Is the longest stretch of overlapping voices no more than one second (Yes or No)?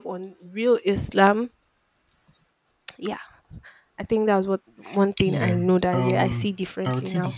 No